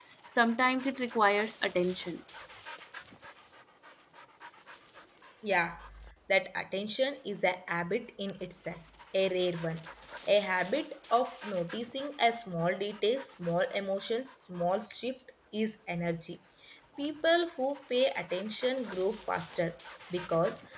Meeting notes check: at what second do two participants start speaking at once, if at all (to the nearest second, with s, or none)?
none